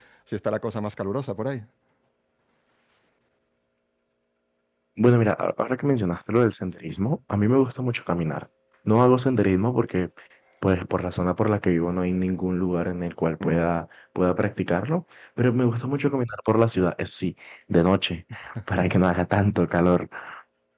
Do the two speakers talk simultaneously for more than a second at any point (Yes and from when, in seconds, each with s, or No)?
No